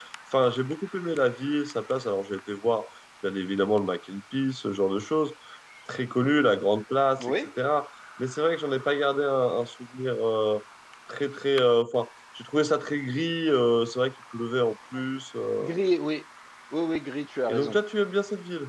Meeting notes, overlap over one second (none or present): none